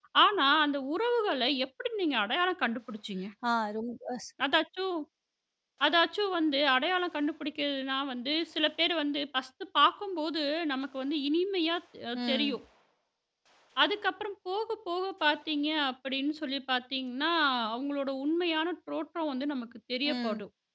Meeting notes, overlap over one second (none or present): none